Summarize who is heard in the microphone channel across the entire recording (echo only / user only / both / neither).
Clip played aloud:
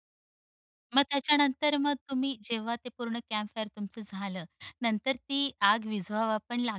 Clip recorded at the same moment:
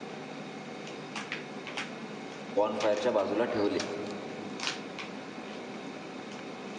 user only